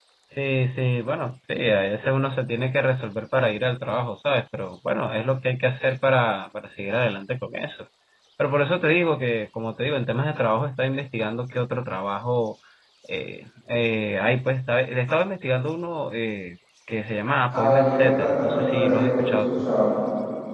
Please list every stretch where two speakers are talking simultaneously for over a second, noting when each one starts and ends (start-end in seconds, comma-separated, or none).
17.5-19.7